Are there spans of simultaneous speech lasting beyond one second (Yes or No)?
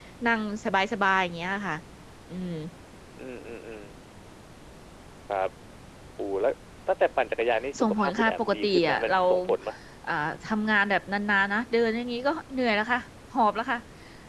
Yes